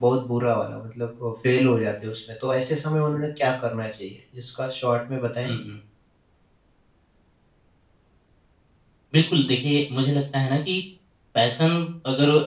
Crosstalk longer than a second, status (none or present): none